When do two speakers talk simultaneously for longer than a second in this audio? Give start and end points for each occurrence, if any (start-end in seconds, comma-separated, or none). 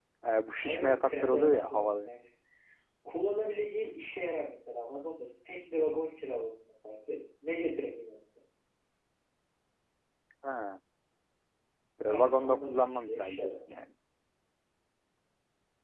0.6-2.1, 12.0-13.5